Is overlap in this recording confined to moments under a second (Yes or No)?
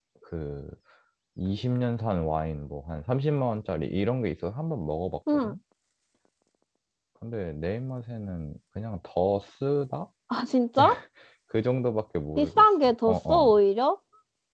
No